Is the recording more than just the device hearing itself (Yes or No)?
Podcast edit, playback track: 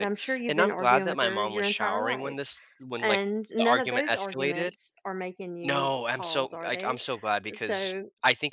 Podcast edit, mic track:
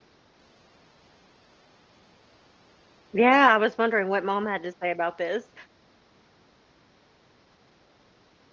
Yes